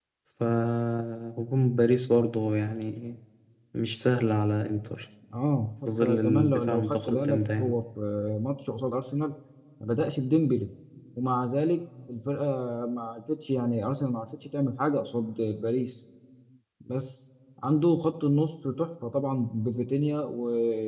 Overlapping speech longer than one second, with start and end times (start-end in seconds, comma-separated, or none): 5.9-7.8